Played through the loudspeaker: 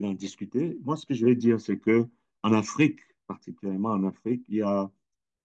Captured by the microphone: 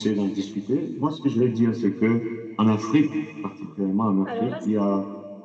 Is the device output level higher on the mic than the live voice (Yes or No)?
Yes